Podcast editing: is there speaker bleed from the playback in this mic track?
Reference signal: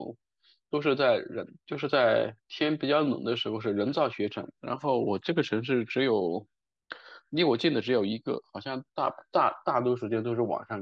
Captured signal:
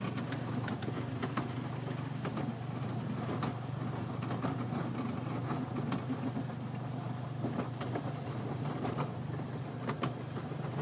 No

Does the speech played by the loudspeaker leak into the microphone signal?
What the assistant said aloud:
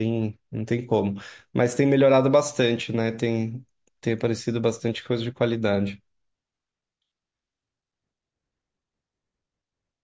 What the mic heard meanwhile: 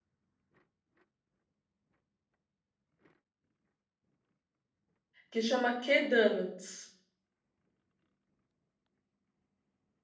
No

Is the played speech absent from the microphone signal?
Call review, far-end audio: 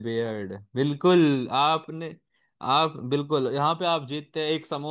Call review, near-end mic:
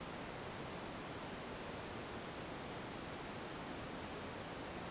Yes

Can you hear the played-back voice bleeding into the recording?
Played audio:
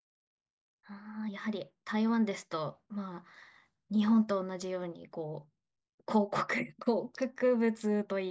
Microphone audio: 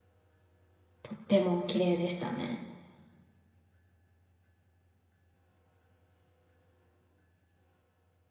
No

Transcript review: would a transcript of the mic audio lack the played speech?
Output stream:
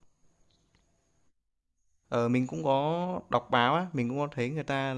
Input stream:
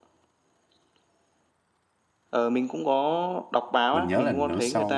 No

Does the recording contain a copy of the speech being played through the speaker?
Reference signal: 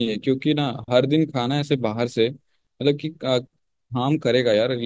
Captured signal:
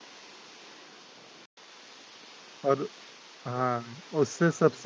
No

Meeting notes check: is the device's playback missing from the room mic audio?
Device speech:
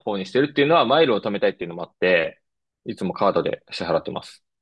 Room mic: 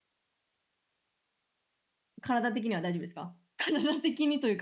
Yes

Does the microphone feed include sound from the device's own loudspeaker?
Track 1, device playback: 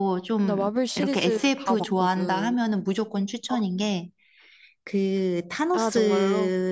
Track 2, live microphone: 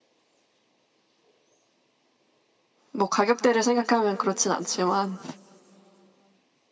No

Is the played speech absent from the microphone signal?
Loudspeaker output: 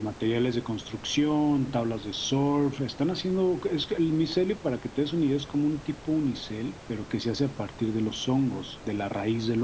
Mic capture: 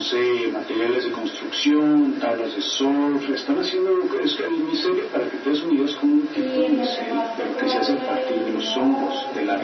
No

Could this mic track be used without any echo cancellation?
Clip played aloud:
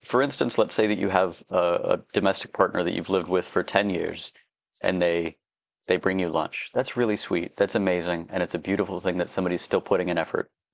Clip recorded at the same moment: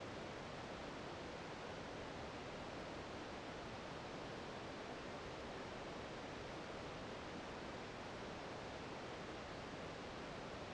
Yes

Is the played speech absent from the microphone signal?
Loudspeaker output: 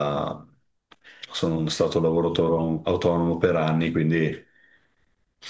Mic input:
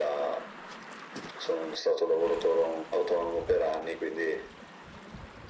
No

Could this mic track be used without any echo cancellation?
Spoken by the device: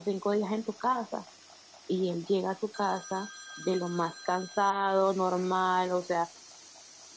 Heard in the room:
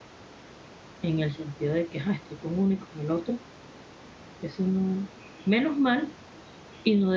Yes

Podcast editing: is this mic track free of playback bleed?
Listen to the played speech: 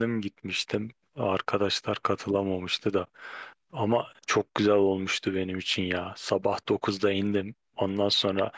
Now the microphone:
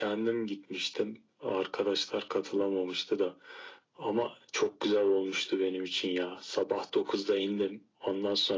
No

